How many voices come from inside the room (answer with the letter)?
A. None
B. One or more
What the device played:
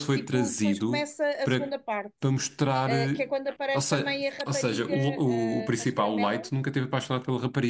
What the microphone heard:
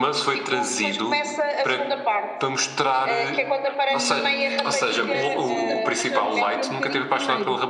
B